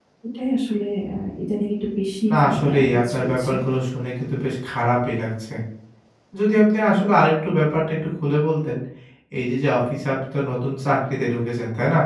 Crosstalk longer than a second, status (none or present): present